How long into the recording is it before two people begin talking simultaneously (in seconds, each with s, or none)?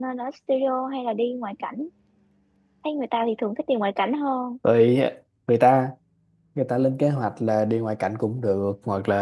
none